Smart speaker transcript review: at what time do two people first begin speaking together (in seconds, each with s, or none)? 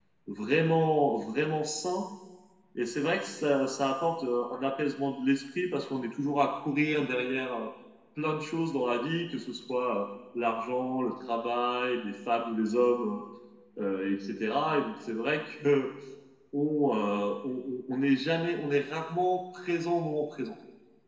none